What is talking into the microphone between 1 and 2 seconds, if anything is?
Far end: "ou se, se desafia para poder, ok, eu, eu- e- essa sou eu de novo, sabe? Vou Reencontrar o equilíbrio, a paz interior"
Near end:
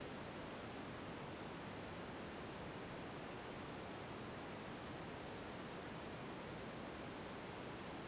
neither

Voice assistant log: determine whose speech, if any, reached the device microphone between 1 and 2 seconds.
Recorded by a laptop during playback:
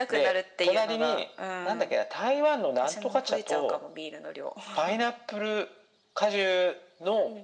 echo only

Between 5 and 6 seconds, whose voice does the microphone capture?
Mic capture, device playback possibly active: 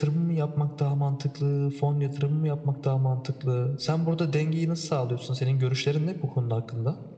echo only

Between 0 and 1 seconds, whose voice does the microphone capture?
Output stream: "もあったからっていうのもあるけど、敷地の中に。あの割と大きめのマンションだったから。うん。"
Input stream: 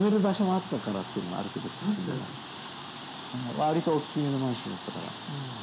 echo only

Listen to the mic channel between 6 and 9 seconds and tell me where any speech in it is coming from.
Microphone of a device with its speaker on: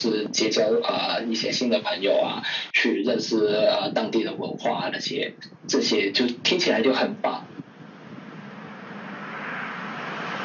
echo only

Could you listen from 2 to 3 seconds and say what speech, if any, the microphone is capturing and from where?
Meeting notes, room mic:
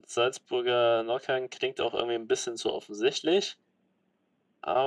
echo only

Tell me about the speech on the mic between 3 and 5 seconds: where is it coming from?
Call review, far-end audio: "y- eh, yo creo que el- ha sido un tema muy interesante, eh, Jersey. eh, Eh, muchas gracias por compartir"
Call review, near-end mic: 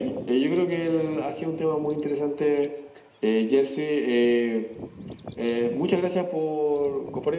echo only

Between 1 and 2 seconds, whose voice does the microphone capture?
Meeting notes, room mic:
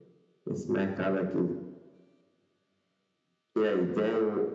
echo only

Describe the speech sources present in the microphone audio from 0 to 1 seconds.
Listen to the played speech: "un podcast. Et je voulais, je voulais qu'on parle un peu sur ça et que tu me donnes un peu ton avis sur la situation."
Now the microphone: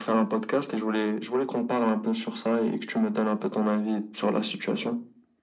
echo only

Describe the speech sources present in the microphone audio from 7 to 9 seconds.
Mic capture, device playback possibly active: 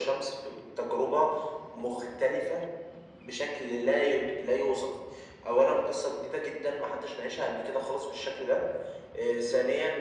echo only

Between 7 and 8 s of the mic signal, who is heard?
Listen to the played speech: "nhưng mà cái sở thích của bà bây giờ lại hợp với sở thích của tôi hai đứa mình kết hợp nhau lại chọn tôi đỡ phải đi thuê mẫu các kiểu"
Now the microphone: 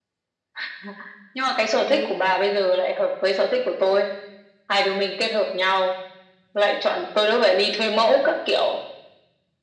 echo only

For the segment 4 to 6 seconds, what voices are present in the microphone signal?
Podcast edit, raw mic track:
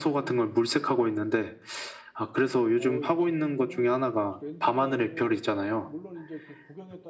both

